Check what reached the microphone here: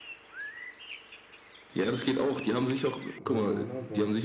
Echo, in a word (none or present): present